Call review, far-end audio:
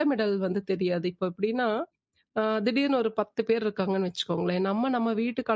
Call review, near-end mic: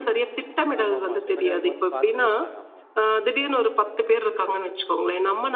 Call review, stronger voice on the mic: echo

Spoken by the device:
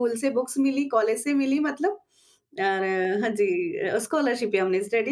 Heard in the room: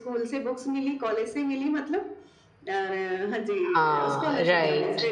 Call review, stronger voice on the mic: user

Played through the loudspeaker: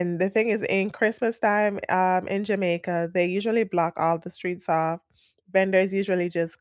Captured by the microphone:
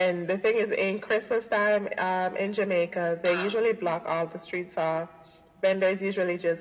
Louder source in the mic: echo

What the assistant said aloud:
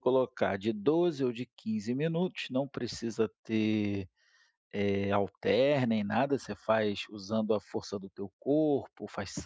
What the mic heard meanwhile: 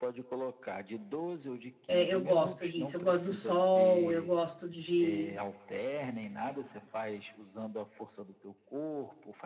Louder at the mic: user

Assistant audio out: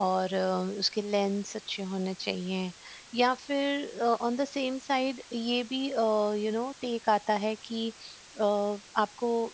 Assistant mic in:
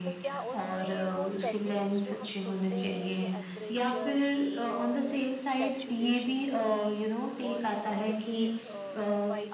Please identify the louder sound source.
echo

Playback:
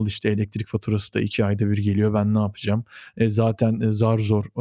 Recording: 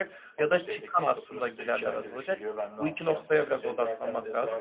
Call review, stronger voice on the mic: user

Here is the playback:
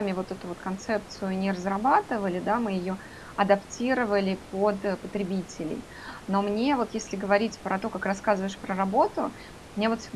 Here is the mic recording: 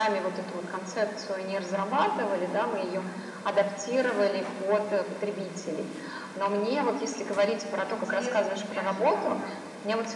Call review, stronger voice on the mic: echo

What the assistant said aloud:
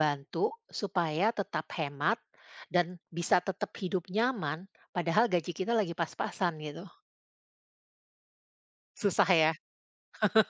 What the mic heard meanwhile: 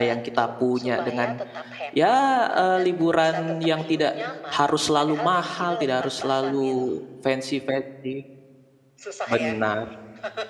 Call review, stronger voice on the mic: user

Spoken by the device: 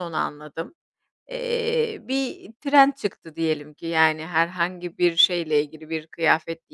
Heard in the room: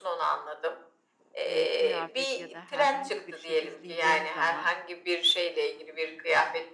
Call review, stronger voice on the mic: echo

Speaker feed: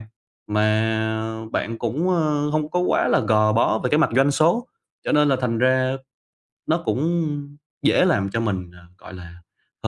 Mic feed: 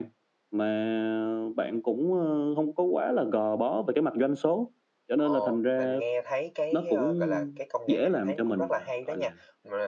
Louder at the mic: echo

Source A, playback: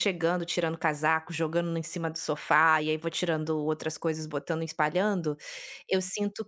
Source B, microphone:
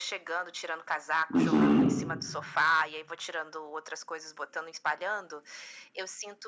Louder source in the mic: user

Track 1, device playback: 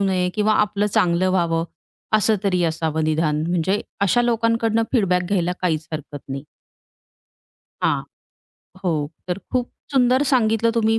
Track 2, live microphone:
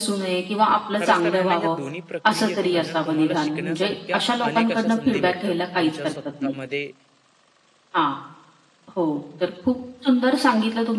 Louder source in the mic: echo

